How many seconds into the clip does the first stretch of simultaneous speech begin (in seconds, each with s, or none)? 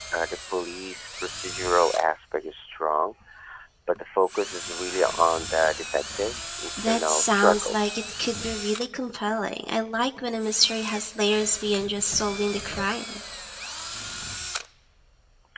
6.8 s